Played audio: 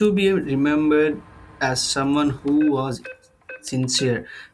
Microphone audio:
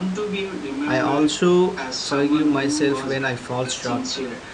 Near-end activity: present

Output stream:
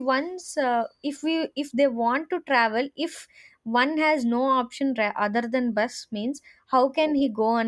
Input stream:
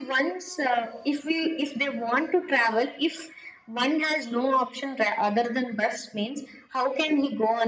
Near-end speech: none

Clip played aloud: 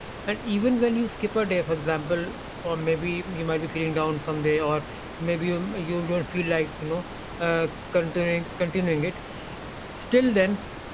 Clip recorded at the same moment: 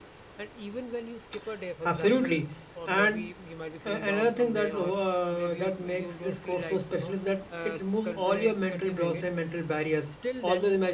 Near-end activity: present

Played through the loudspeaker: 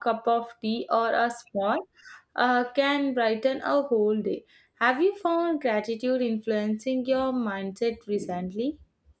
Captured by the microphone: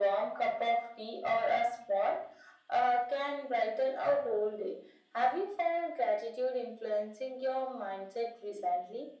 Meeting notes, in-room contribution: none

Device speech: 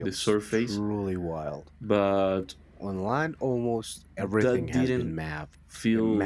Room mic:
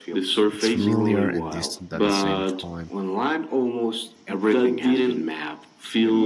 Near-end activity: present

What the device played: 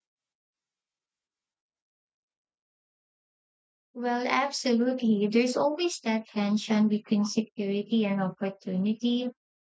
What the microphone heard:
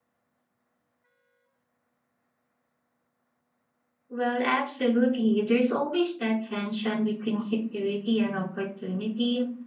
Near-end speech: none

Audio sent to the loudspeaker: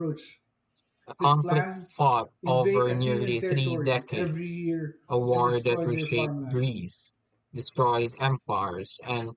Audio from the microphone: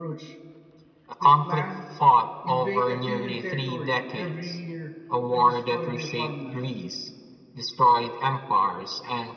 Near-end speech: none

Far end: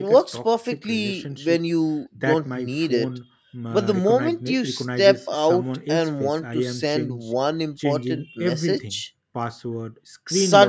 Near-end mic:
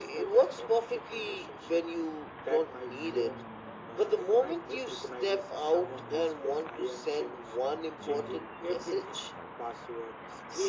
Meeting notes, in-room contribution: none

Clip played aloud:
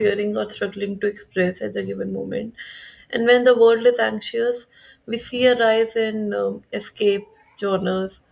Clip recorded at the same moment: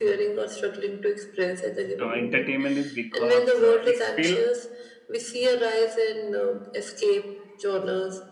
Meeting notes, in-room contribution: present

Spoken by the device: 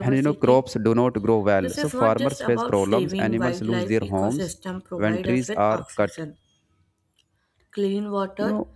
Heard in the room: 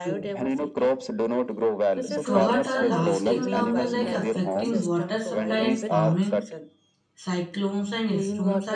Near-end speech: present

